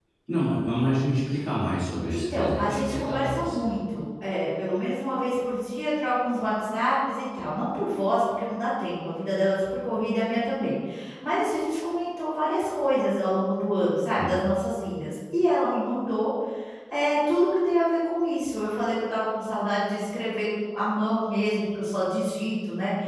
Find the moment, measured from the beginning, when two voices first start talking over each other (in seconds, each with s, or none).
2.1 s